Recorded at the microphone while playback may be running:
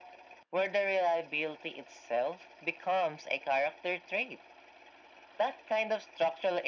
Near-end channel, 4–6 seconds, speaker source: echo only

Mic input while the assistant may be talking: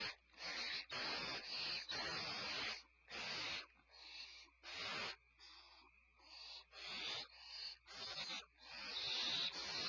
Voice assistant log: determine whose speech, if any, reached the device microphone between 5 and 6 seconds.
neither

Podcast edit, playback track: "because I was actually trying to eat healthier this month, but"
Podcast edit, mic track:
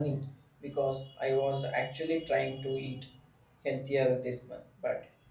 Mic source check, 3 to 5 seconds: echo only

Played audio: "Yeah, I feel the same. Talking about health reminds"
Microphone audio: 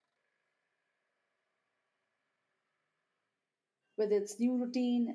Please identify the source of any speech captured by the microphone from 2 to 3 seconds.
neither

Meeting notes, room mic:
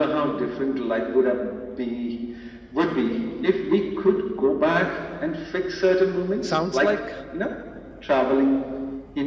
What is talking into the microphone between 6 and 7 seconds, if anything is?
both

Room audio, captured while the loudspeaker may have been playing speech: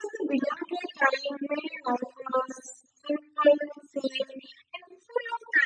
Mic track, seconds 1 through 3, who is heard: echo only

